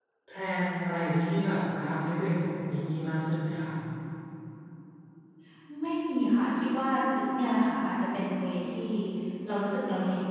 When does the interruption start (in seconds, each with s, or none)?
none